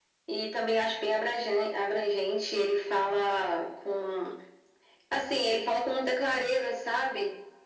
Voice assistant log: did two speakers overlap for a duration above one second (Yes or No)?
No